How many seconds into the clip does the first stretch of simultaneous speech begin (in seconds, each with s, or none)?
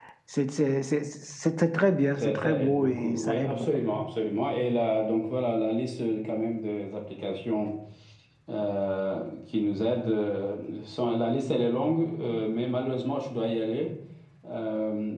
2.2 s